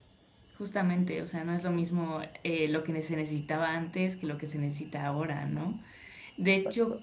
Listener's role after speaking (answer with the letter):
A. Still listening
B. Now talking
A